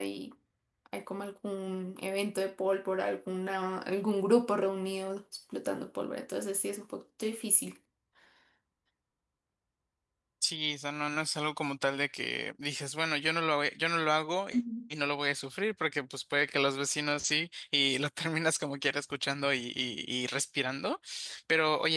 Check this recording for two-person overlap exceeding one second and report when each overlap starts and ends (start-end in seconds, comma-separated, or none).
none